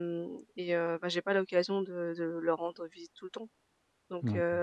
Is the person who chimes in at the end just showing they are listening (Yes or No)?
Yes